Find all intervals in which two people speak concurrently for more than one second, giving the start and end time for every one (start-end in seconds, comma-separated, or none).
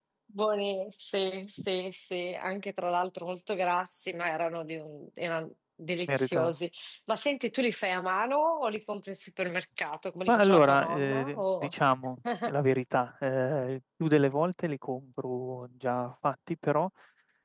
10.3-11.7